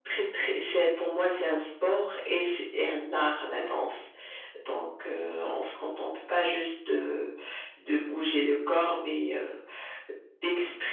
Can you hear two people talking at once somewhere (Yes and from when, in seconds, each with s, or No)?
No